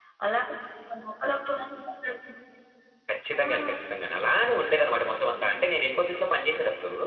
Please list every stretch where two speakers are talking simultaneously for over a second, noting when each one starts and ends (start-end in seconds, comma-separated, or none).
none